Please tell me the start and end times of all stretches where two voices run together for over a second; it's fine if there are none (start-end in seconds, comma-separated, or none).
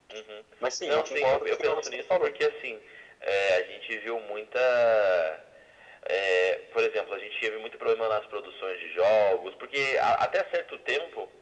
0.8-2.3